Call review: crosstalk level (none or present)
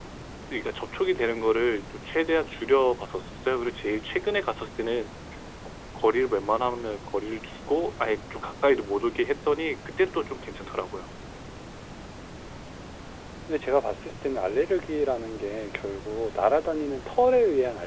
none